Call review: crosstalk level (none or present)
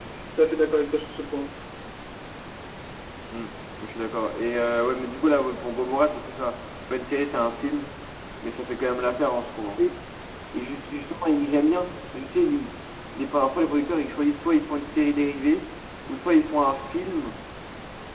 none